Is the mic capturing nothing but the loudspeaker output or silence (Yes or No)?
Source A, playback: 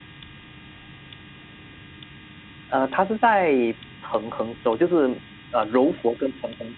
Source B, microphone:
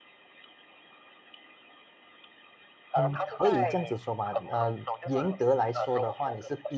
No